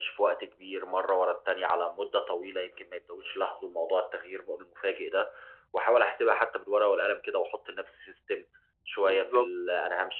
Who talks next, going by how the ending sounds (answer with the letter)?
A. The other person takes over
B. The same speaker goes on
B